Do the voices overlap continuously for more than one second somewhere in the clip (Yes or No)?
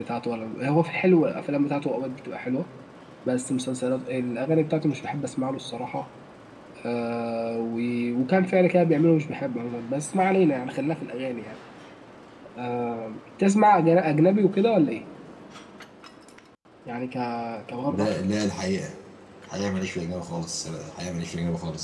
No